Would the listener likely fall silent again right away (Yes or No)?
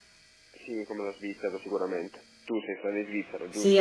No